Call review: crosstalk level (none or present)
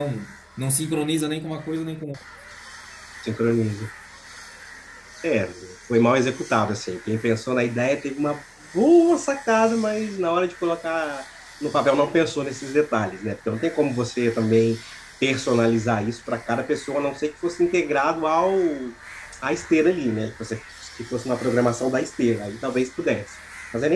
none